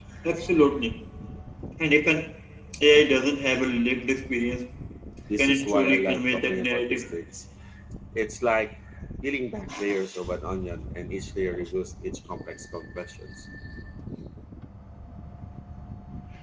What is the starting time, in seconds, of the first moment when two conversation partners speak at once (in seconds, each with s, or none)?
5.4 s